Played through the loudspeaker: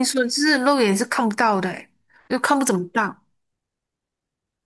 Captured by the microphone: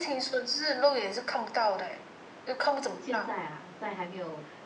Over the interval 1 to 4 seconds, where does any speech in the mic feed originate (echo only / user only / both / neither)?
both